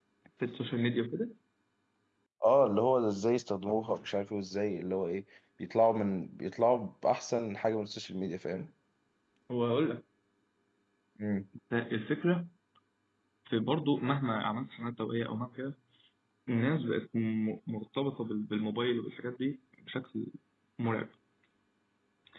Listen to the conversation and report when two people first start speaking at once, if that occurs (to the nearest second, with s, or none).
none